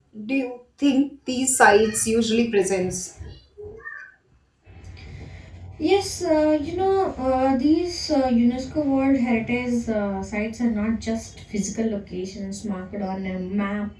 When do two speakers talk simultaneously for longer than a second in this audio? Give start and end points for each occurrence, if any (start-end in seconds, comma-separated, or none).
none